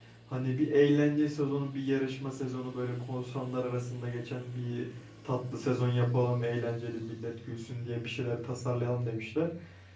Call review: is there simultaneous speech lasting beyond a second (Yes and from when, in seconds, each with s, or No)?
No